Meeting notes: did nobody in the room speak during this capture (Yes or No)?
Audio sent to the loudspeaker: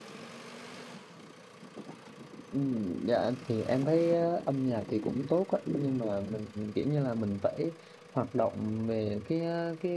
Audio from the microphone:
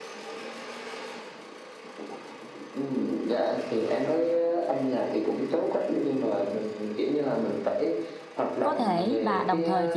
No